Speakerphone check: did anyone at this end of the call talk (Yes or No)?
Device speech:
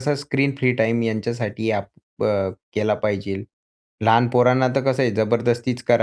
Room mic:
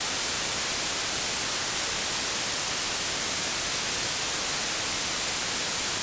No